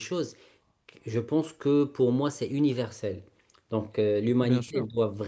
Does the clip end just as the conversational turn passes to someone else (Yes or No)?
No